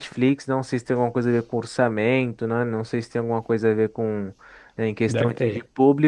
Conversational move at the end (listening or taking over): listening